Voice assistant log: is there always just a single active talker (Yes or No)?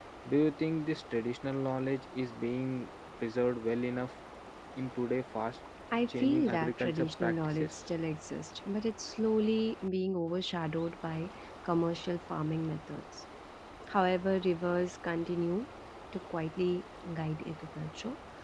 No